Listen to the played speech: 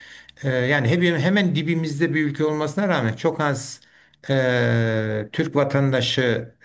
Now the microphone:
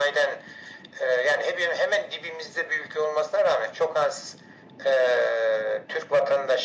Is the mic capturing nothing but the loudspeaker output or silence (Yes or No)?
Yes